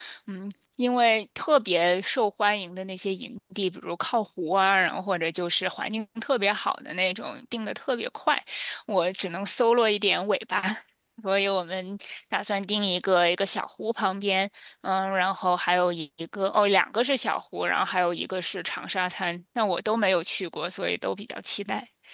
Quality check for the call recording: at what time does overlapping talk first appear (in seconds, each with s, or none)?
none